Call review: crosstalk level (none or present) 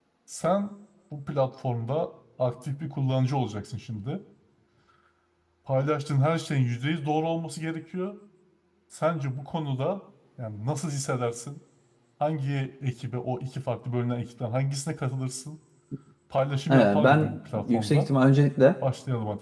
present